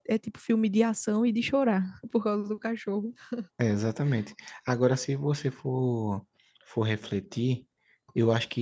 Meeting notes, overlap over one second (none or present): none